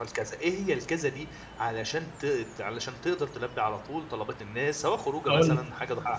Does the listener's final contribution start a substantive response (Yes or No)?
No